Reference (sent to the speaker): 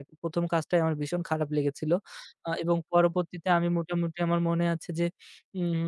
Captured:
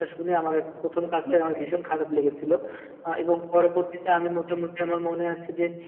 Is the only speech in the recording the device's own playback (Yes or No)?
No